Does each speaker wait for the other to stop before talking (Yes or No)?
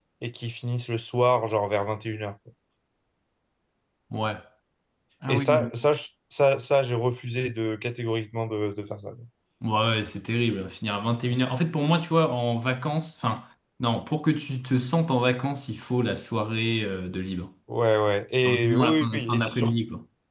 No